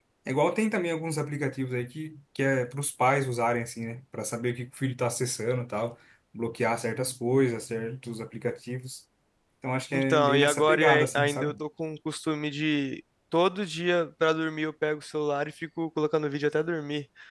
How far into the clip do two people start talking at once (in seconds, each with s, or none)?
9.9 s